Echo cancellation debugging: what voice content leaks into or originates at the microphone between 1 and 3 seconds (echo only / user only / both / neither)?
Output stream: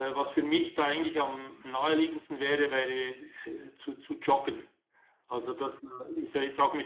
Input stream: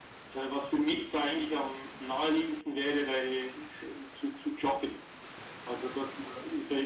echo only